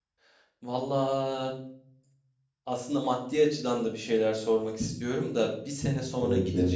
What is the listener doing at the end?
listening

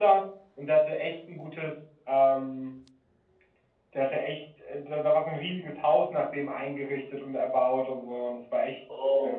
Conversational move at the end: taking over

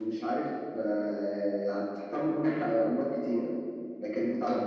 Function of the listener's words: listening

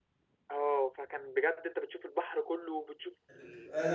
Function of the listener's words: taking over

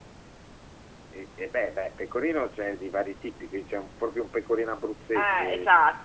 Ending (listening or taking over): taking over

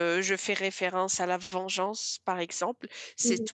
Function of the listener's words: listening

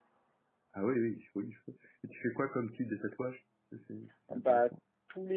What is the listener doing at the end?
taking over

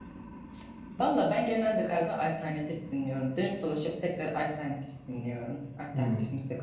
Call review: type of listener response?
listening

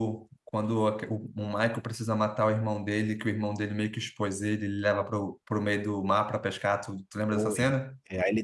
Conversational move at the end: taking over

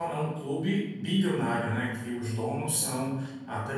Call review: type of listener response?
listening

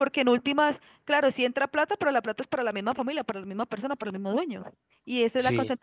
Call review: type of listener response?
listening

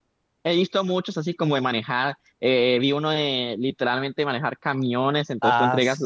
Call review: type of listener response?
listening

